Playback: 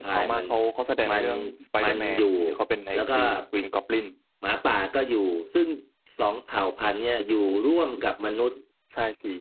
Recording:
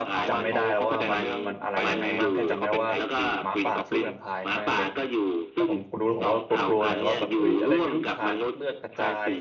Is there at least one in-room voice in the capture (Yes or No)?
Yes